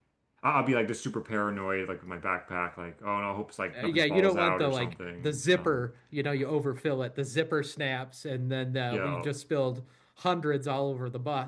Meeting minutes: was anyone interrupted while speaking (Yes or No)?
Yes